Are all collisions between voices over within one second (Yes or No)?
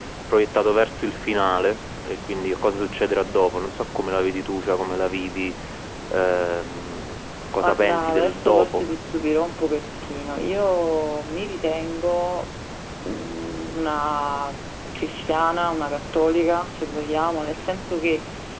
No